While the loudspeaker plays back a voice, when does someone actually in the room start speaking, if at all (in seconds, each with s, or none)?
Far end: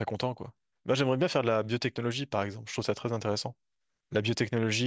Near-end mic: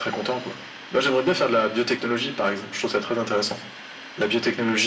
none